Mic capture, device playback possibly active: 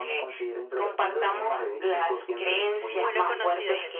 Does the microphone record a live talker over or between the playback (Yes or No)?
Yes